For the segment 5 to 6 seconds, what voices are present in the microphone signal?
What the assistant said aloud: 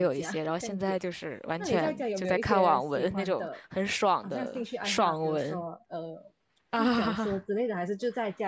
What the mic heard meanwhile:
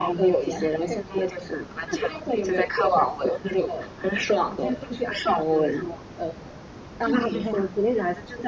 echo only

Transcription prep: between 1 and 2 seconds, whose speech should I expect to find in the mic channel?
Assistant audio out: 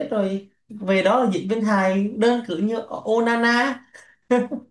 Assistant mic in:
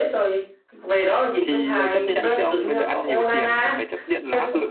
both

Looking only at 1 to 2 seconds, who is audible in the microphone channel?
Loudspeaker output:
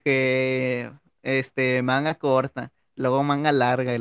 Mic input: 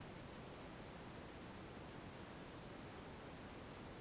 neither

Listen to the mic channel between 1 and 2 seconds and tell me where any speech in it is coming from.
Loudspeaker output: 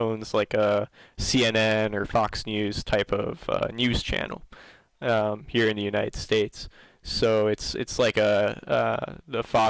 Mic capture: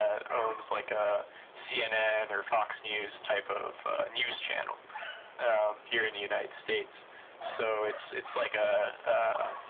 echo only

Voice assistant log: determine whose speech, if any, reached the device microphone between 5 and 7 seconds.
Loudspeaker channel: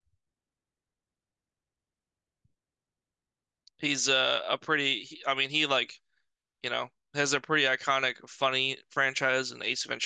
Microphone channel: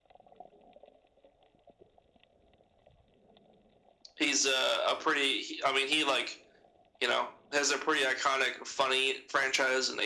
echo only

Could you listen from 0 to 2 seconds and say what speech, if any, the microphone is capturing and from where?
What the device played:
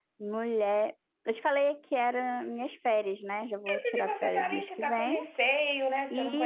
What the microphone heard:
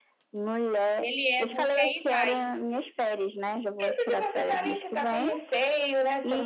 both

